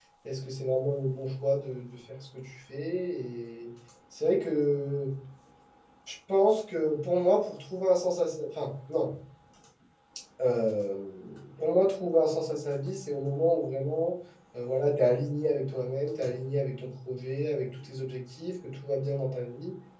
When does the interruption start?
none

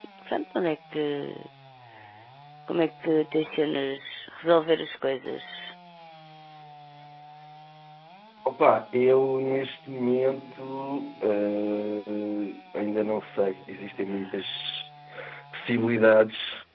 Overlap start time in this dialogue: none

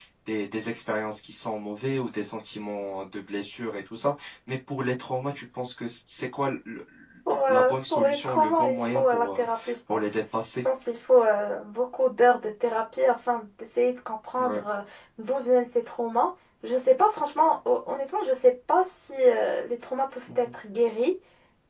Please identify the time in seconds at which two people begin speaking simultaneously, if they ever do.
7.3 s

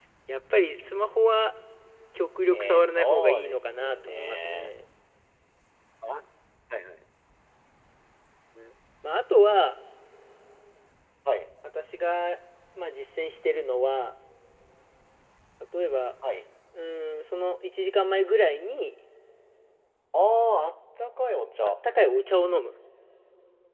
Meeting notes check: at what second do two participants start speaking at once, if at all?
2.5 s

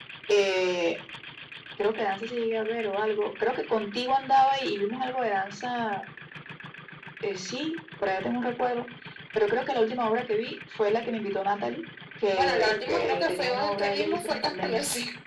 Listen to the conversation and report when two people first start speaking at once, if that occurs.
12.4 s

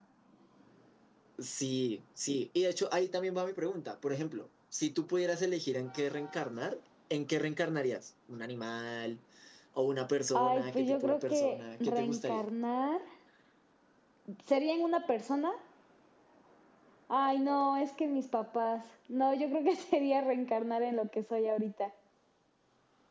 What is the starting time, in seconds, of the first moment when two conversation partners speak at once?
10.3 s

